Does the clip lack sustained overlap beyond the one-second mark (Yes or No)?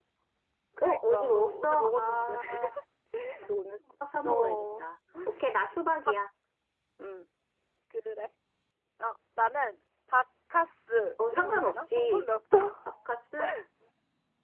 No